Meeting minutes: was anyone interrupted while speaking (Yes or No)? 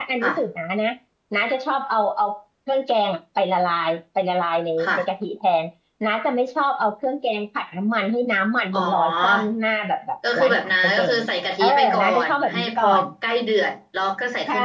Yes